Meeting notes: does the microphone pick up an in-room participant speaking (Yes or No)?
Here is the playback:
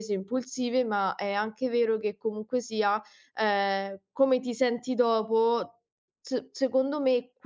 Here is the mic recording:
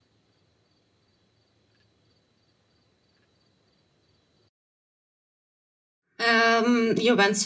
Yes